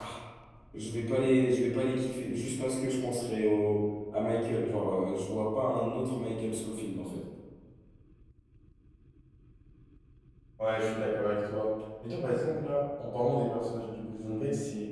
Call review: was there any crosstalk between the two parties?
No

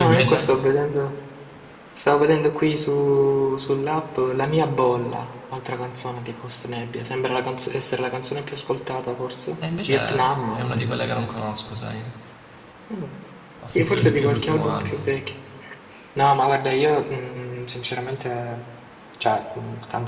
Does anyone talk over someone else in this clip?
Yes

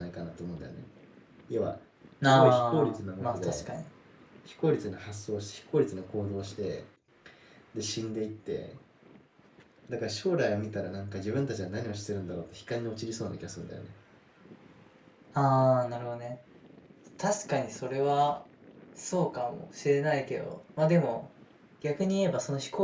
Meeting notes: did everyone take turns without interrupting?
No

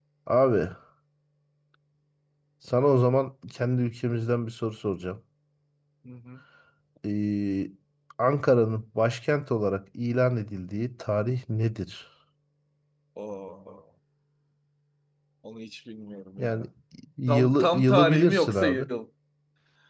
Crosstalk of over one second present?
Yes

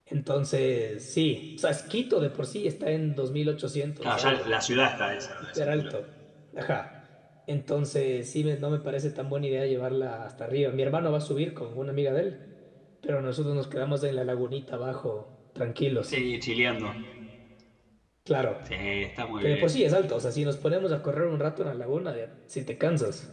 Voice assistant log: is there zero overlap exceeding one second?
Yes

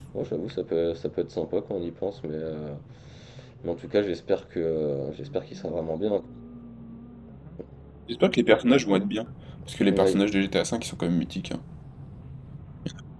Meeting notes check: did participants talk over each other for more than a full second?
No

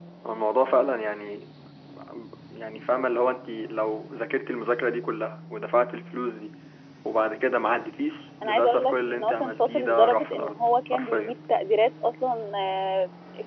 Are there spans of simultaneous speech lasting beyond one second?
Yes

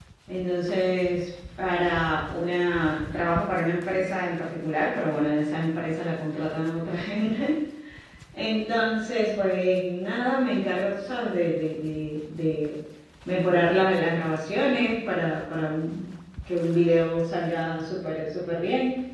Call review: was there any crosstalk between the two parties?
No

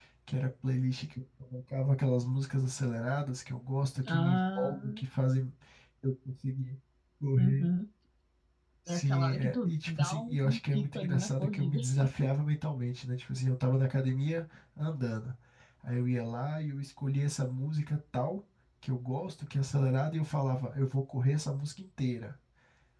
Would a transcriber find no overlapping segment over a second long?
No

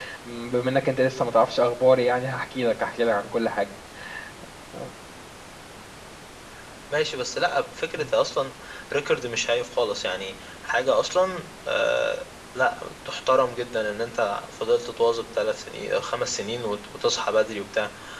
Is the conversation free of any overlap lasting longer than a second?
Yes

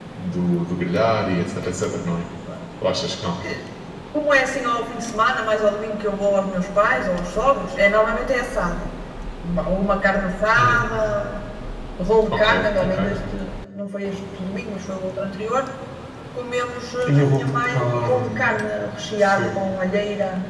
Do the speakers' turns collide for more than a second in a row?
Yes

